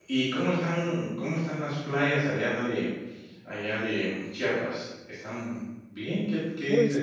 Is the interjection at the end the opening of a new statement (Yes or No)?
Yes